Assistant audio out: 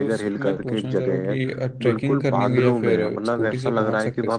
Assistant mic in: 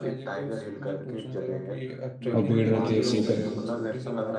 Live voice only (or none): और भीड़ रहती है स्लीपर